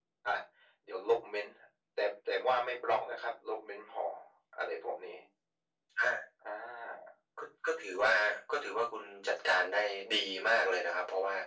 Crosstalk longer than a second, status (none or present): none